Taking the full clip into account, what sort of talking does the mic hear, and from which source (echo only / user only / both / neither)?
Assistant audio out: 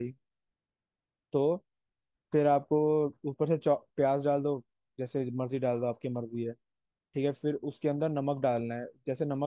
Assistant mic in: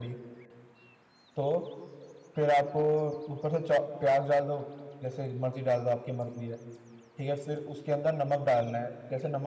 echo only